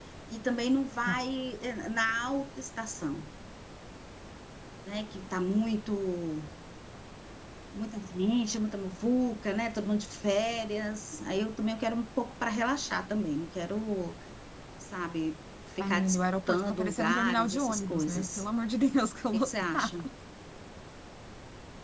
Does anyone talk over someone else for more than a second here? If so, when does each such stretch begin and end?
15.8-18.4

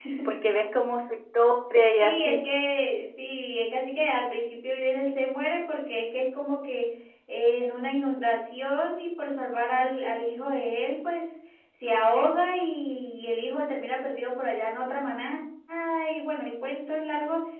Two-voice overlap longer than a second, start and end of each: none

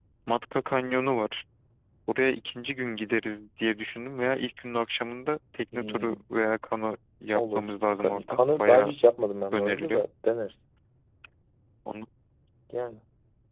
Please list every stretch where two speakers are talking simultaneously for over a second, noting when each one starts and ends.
7.3-8.9

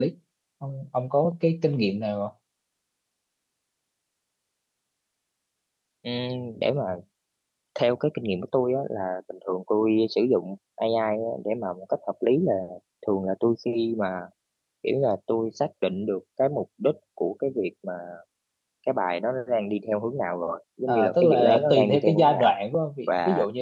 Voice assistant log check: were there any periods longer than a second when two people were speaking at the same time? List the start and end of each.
20.9-22.5

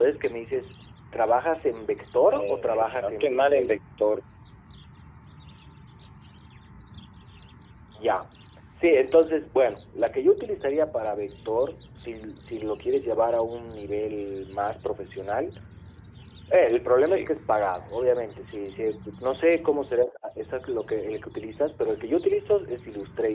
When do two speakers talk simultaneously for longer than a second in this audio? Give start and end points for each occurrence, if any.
2.3-3.7

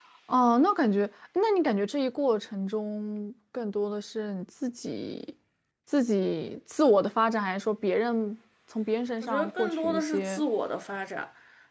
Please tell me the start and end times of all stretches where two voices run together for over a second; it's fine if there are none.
9.2-10.4

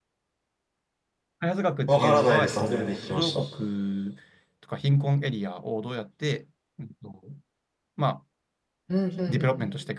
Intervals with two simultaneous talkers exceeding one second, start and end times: 1.9-3.4

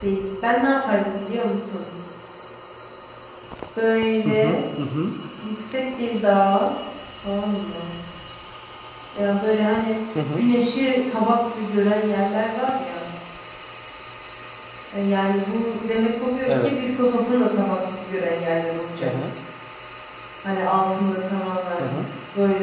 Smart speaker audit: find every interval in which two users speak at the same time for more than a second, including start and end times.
none

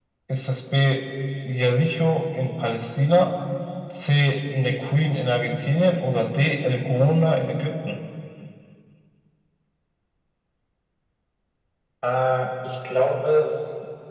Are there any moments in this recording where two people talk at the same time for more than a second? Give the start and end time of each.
none

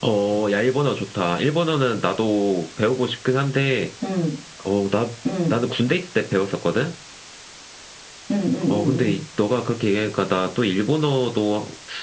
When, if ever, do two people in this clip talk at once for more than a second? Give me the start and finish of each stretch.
none

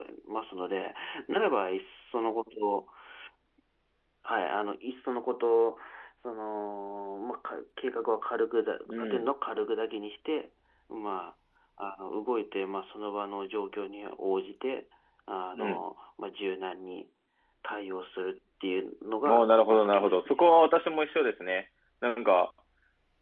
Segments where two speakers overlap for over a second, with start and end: 19.2-20.4

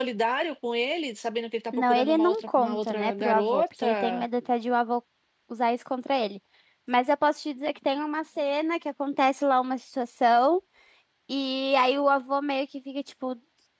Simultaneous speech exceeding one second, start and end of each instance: 1.7-4.2

